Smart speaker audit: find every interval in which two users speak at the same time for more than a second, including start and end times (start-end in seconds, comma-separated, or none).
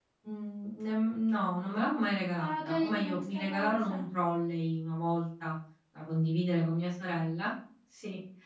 2.4-4.0